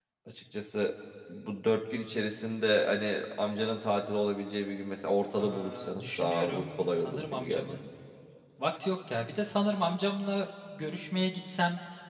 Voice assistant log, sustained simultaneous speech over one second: present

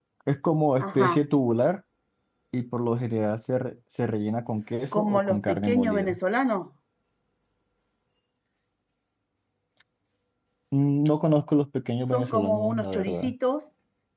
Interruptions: present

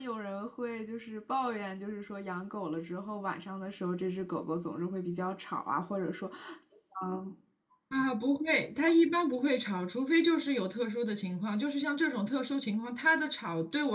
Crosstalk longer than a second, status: none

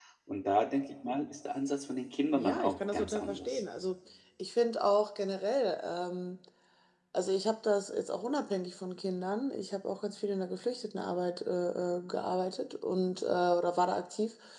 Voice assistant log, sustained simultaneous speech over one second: present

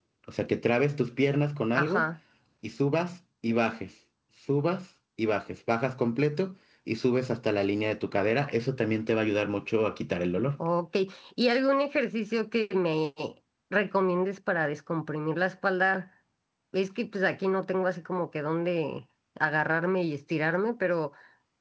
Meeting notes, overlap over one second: none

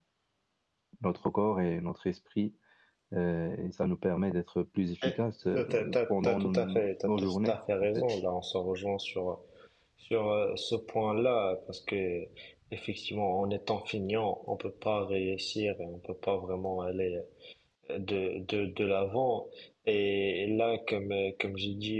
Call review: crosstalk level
present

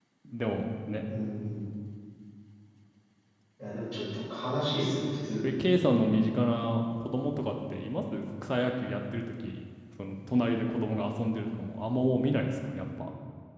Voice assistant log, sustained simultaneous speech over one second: none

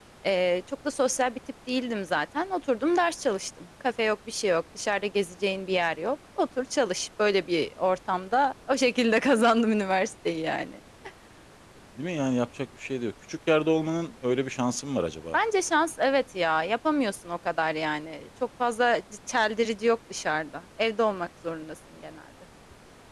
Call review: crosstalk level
none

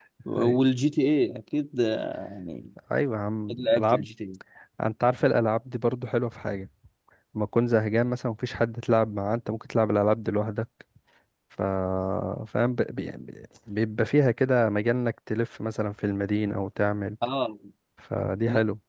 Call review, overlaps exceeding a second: none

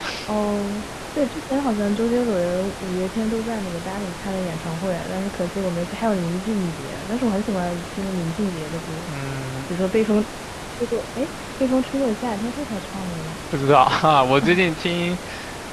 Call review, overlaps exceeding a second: none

